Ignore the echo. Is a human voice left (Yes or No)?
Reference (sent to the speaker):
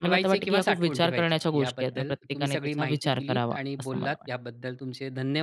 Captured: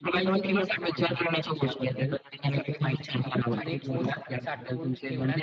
Yes